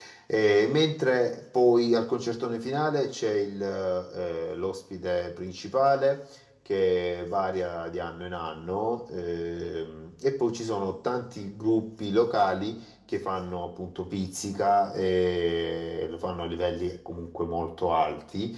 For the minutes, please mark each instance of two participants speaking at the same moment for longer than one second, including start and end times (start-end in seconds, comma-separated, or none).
none